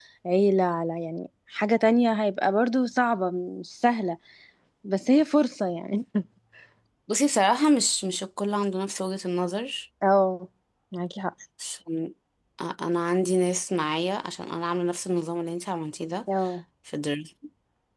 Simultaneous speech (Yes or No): No